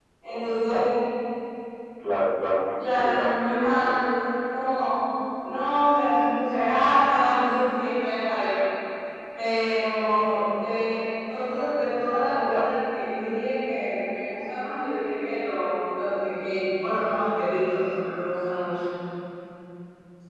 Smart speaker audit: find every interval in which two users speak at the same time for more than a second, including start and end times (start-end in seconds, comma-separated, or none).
2.8-4.0